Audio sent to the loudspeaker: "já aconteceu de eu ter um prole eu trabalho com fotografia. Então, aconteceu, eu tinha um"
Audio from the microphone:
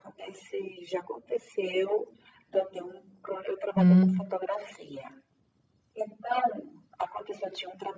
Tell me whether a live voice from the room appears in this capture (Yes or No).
Yes